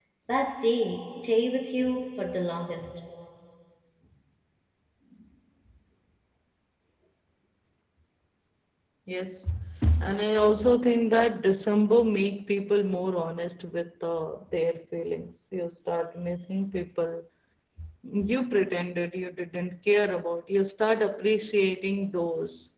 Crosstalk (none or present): none